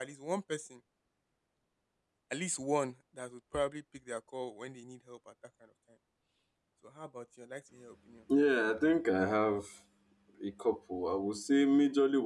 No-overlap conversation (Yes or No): Yes